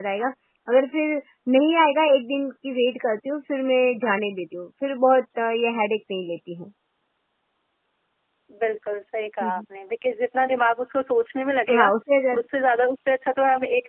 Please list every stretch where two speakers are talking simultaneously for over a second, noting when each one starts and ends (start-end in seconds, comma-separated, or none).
none